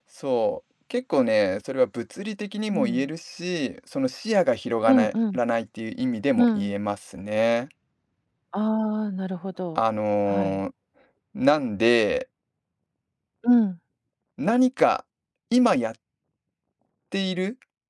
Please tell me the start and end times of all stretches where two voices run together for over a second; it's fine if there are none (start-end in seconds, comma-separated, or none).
none